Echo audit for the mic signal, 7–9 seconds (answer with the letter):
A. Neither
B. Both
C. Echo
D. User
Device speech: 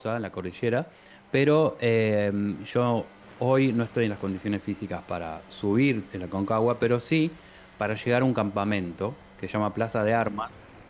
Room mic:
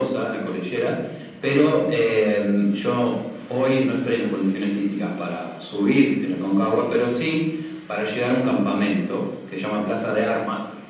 C